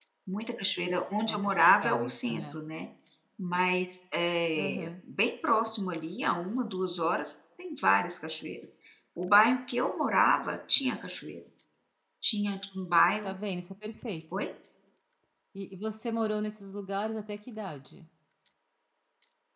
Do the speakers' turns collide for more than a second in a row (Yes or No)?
Yes